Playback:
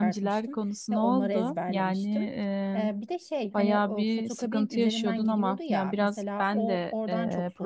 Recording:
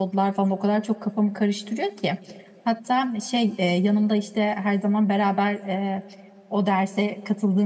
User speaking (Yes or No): Yes